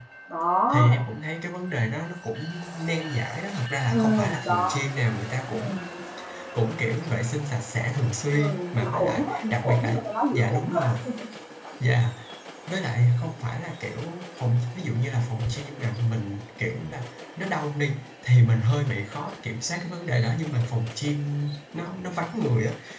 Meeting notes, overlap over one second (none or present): present